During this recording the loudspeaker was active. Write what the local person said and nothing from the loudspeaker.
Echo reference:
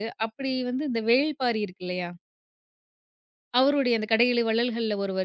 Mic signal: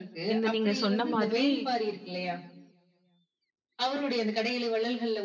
இந்த நீங்க சொன்ன மாதிரி

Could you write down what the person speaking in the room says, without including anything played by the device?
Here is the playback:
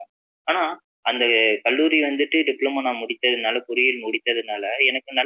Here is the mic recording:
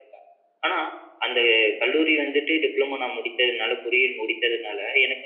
none

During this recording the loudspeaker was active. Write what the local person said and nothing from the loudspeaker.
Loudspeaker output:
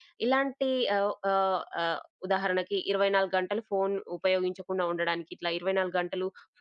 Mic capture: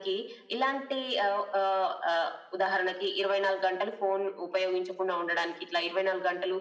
none

